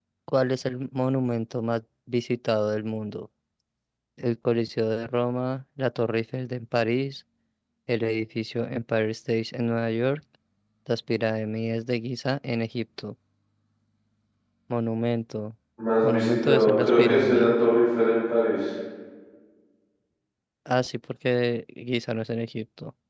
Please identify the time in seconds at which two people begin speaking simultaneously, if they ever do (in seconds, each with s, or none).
16.0 s